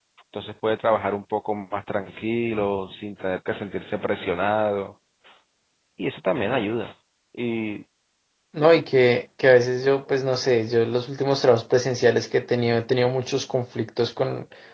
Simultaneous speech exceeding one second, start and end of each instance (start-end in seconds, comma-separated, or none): none